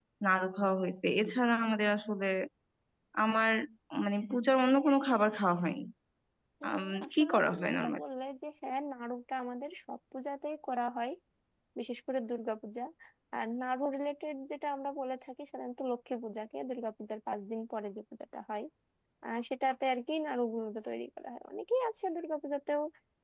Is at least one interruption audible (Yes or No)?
Yes